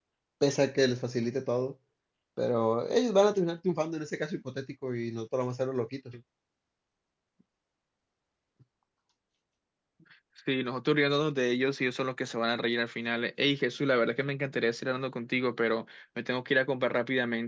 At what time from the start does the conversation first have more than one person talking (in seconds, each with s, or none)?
none